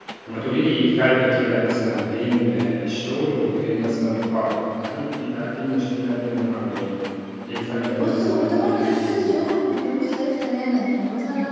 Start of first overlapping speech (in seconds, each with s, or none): 7.9 s